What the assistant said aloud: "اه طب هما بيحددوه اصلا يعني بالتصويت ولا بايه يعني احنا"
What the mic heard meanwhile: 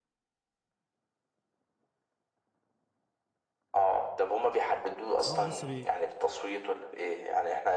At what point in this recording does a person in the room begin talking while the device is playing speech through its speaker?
5.2 s

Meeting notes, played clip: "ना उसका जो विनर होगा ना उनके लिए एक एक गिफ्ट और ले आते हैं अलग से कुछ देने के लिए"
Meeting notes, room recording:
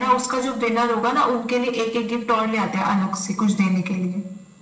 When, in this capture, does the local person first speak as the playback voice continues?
none

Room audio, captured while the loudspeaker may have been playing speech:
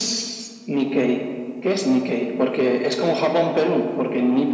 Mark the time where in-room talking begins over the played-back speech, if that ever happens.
none

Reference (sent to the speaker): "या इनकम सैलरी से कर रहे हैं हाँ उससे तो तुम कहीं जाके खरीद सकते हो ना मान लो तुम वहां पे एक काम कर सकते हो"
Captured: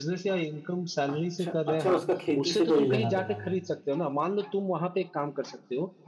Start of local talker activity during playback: 1.1 s

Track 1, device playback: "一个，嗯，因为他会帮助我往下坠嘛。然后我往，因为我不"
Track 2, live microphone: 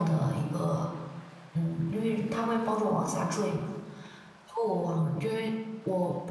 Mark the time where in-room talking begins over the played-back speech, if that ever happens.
none

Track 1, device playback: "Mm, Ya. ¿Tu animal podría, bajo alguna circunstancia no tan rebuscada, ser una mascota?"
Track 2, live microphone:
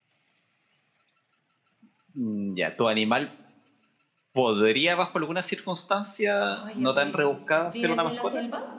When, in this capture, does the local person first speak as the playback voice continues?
6.4 s

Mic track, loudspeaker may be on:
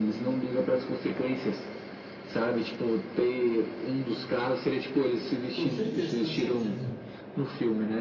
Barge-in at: 5.5 s

